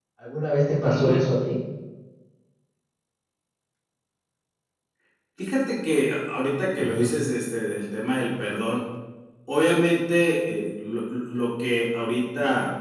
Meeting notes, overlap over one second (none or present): none